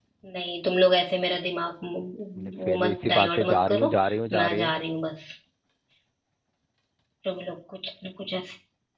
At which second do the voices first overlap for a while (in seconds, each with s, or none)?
2.4 s